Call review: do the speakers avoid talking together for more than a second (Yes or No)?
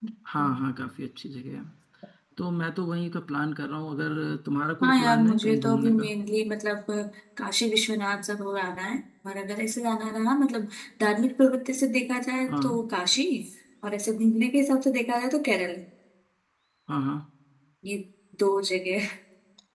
No